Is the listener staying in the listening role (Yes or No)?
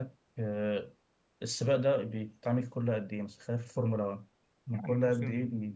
No